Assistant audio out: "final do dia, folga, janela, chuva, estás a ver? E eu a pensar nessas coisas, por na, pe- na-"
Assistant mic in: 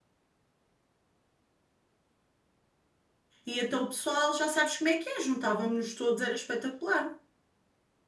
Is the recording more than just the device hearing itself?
Yes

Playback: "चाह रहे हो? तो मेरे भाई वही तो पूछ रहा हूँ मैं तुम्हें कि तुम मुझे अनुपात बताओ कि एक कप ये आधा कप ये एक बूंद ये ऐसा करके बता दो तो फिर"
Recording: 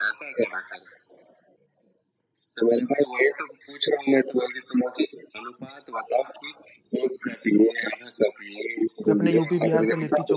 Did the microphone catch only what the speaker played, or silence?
No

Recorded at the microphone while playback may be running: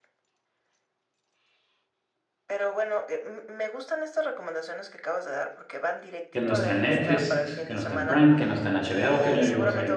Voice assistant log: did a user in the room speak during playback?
Yes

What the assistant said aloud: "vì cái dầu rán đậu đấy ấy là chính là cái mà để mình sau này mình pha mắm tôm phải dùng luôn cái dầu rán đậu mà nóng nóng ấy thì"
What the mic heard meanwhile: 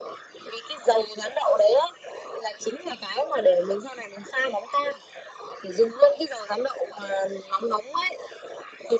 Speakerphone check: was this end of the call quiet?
Yes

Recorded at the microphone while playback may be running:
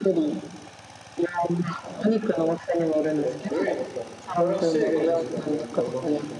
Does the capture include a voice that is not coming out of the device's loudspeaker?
Yes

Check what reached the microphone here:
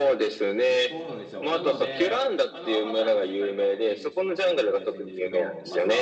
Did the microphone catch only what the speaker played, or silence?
No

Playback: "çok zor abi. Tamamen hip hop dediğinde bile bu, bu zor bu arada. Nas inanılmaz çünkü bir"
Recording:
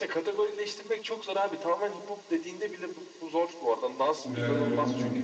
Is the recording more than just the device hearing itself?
Yes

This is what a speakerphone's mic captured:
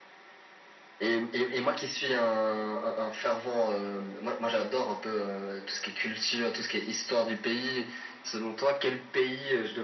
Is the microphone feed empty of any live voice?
Yes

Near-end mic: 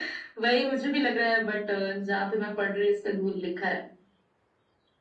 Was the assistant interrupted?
No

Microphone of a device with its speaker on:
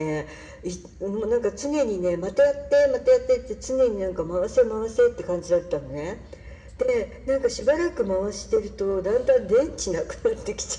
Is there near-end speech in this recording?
No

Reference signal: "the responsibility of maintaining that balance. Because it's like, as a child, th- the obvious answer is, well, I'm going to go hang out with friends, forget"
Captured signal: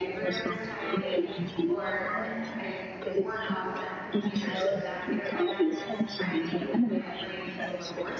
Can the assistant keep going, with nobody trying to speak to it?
No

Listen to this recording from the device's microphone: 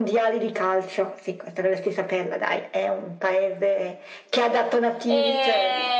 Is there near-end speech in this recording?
Yes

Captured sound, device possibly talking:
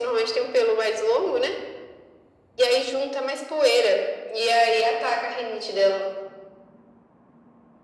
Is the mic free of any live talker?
Yes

